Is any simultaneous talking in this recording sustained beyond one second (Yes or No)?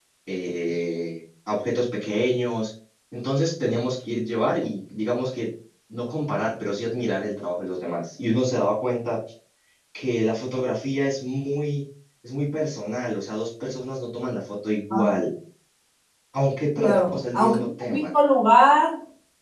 Yes